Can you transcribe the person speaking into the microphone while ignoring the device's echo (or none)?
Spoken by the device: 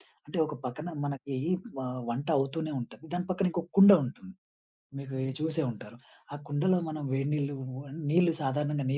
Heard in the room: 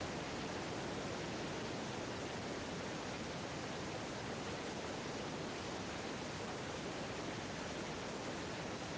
none